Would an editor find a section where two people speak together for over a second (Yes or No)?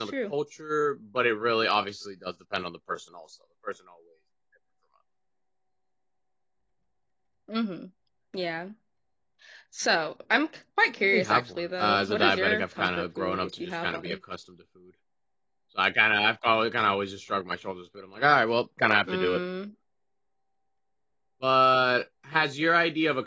Yes